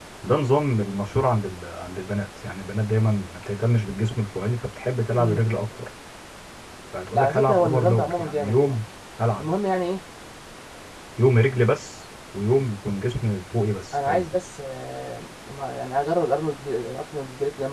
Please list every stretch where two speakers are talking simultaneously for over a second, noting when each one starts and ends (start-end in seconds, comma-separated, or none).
7.1-8.8